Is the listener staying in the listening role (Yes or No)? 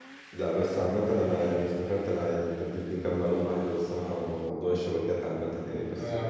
Yes